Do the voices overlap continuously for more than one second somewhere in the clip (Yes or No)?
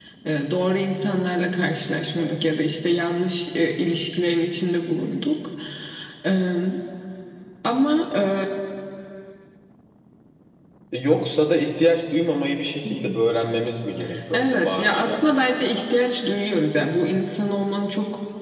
Yes